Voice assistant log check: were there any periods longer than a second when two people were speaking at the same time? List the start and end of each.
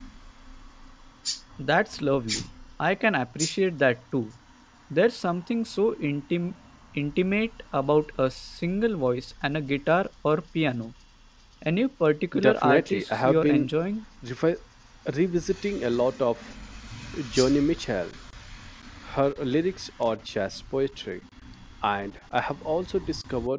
12.4-13.7

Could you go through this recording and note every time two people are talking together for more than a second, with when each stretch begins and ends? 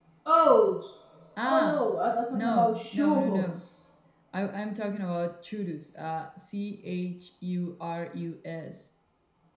2.3-3.6

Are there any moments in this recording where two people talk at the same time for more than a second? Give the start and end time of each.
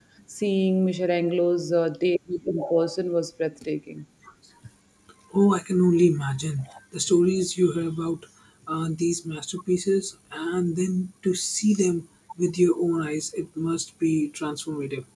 none

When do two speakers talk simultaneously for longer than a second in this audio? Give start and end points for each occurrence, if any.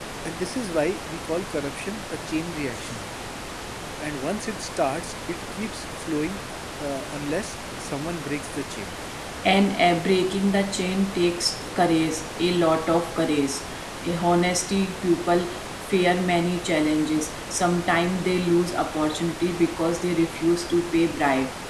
none

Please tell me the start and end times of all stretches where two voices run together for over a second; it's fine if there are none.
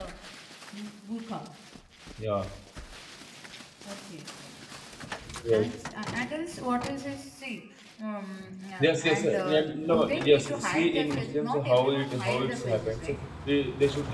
8.8-13.1

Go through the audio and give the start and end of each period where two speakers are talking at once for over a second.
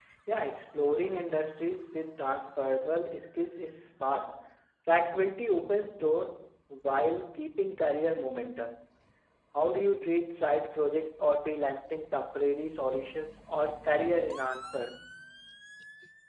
none

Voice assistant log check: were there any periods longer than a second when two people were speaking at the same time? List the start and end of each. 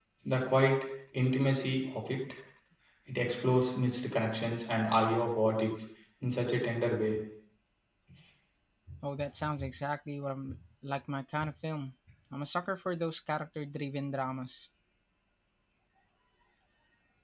none

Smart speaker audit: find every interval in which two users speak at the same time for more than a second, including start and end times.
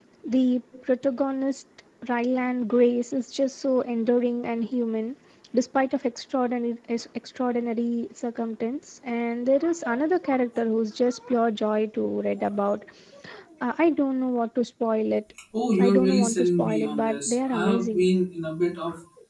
15.8-18.1

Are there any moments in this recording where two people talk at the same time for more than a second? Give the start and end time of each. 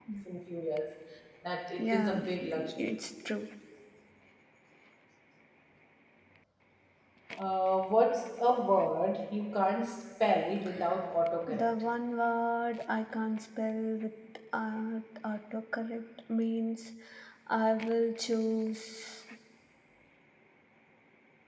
1.8-3.0

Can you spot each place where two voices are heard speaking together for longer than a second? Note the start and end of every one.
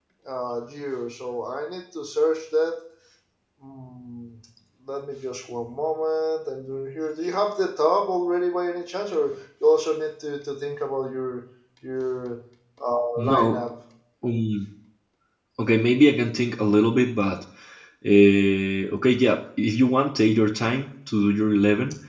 none

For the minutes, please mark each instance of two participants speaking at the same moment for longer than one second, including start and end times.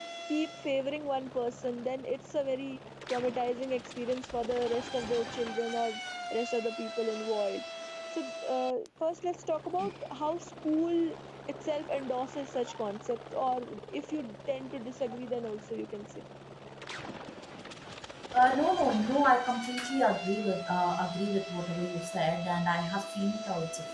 none

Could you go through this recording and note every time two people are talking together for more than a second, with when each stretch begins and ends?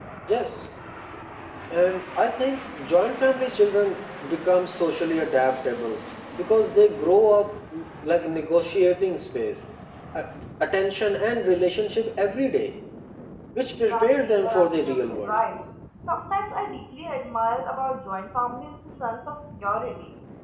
13.9-15.4

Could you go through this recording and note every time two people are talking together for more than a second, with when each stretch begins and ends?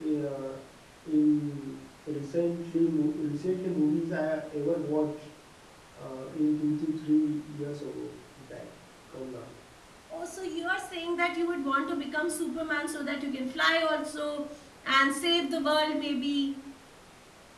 none

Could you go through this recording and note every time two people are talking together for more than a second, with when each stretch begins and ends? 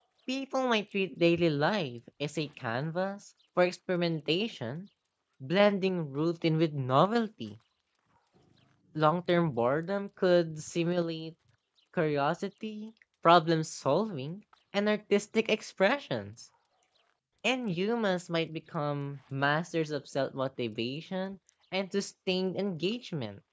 none

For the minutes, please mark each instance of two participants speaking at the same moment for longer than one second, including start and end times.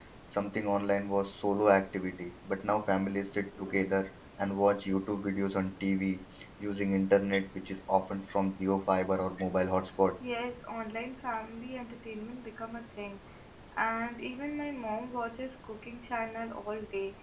none

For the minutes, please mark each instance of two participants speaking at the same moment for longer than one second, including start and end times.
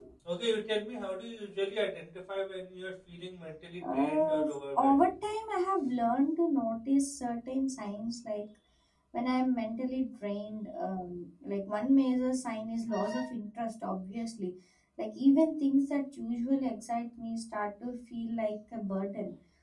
3.8-5.0

